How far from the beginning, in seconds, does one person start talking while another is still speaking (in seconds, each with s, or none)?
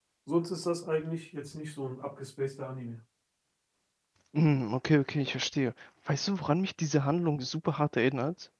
none